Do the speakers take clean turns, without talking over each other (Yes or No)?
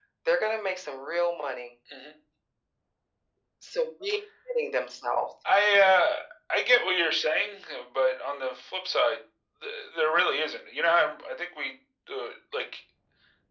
Yes